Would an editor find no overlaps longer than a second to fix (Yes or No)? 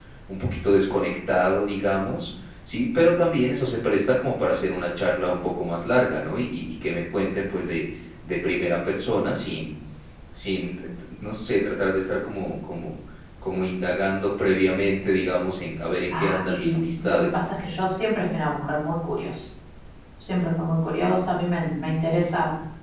No